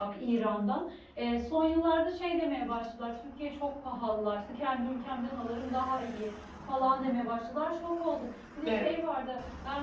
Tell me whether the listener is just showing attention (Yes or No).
Yes